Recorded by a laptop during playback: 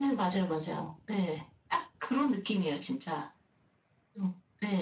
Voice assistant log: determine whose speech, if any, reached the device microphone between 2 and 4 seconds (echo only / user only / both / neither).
echo only